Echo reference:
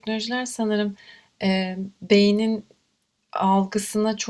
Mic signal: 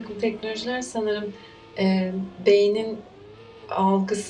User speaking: No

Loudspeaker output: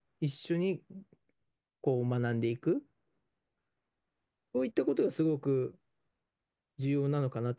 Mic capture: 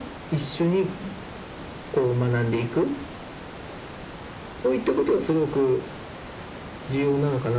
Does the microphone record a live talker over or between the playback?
No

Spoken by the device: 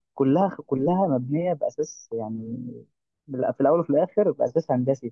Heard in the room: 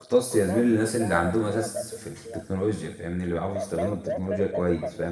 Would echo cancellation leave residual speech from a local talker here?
Yes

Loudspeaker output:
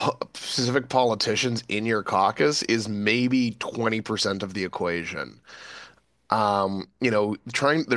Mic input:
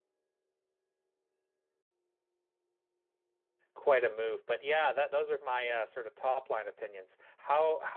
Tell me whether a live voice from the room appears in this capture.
Yes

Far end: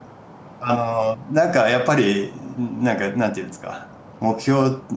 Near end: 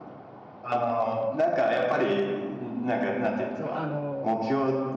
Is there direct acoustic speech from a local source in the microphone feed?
Yes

